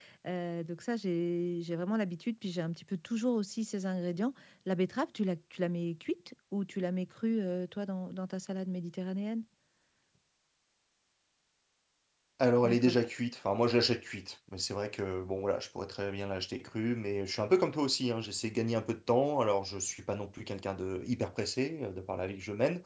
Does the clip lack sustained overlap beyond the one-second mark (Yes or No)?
Yes